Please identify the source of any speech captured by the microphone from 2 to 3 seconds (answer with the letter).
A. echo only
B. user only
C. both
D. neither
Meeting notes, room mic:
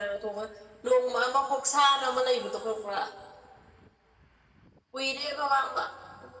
A